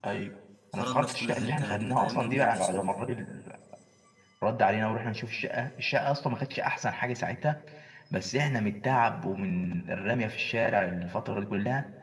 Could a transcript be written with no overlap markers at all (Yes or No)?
No